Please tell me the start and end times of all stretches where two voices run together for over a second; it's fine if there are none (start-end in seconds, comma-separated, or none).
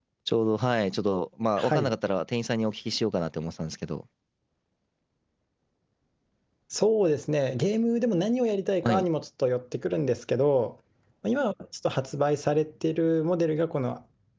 none